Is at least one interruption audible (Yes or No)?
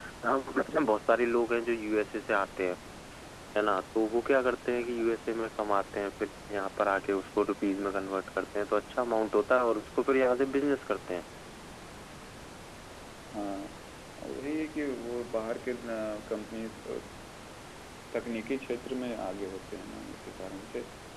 No